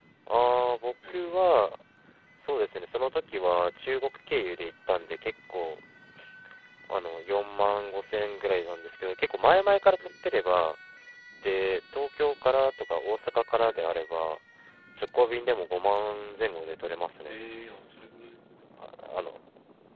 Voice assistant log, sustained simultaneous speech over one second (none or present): none